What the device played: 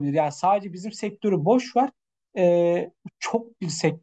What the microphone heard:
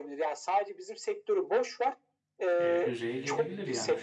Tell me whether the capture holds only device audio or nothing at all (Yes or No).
No